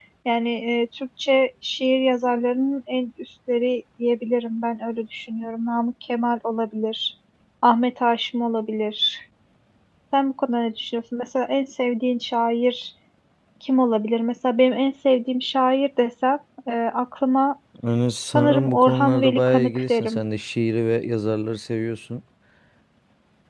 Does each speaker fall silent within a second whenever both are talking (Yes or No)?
No